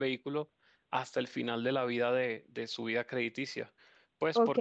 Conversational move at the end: taking over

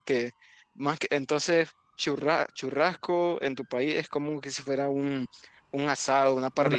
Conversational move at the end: taking over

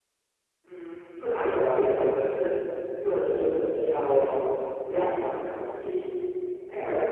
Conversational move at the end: listening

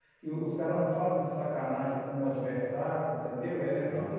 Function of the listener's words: listening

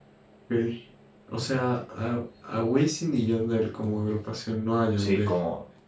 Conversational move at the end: taking over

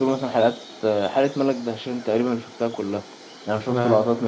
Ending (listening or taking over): listening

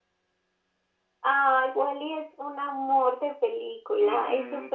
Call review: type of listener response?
taking over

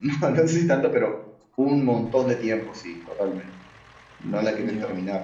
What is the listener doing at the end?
listening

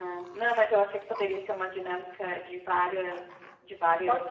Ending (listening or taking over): taking over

